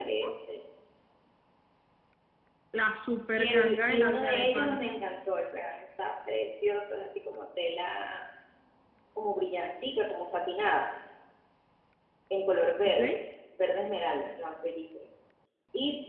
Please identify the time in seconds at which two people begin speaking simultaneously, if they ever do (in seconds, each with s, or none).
3.4 s